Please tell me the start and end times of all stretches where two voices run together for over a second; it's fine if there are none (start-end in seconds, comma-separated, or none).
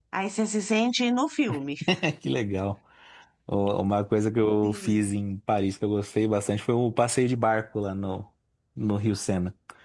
none